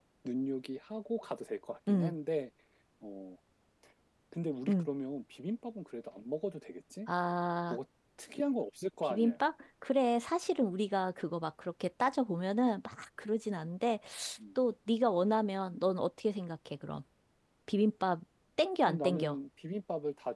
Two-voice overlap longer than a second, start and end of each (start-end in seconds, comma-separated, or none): none